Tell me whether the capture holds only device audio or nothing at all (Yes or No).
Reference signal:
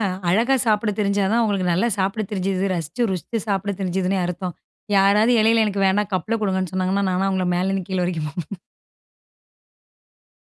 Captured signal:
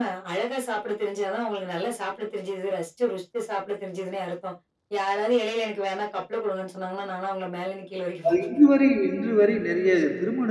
No